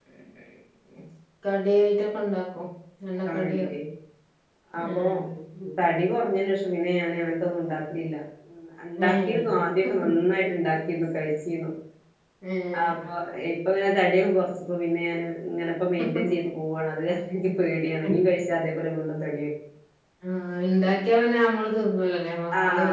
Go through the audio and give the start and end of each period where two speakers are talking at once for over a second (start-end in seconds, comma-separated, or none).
9.1-10.4